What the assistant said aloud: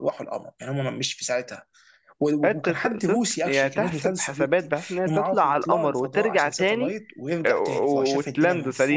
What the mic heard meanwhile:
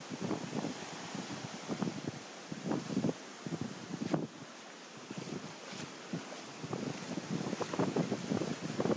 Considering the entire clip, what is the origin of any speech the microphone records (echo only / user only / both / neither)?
neither